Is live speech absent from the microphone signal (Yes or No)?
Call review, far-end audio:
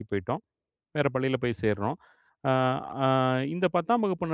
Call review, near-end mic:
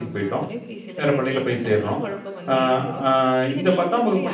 No